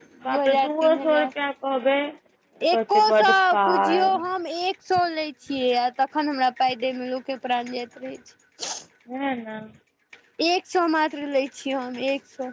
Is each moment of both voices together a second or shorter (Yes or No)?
No